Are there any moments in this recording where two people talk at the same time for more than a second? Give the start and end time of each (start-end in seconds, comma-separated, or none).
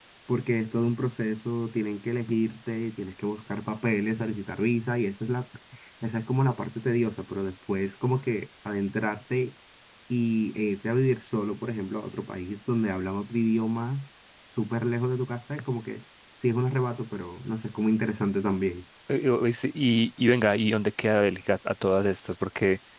none